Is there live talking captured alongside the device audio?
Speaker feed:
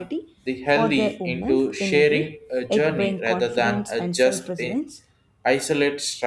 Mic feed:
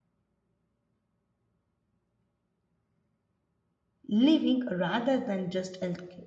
Yes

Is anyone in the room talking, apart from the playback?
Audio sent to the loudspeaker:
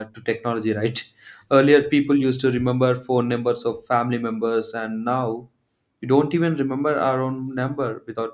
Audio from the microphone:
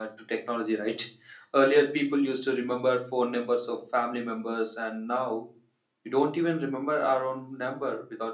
No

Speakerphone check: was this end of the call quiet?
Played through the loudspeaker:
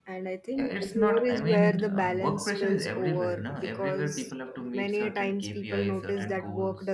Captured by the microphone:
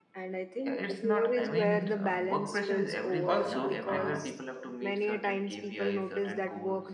No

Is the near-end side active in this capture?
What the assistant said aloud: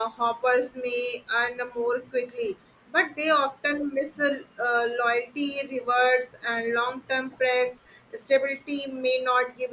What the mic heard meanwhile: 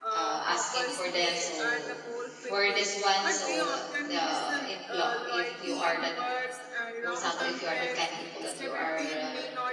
Yes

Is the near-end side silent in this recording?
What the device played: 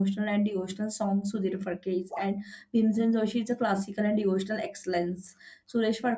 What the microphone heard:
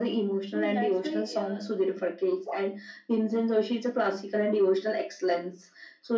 No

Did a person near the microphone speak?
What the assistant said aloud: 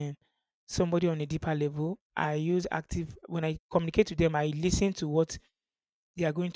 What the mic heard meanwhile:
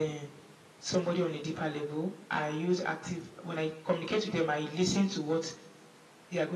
No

